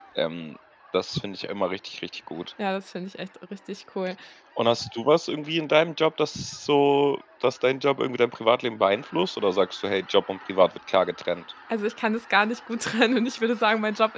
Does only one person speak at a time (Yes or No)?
Yes